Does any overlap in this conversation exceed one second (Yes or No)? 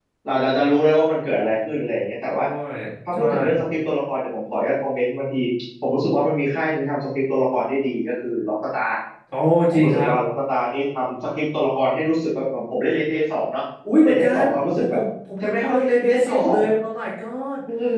Yes